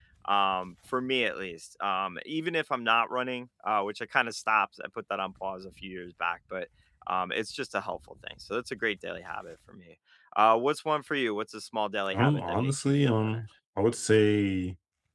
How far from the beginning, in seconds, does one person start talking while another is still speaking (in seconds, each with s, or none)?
12.1 s